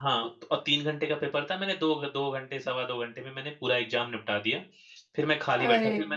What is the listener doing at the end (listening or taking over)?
listening